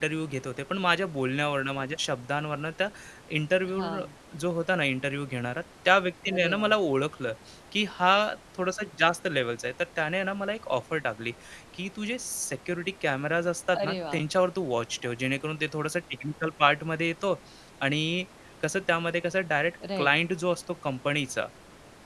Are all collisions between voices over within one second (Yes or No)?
Yes